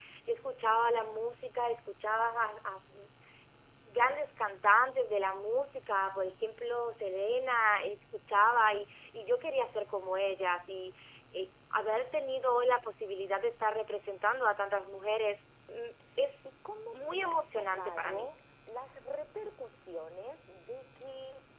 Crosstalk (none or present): present